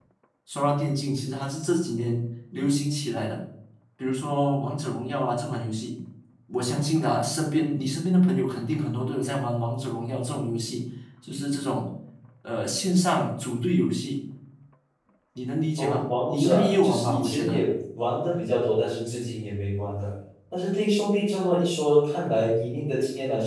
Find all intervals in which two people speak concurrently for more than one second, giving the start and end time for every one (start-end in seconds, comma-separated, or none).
15.8-17.7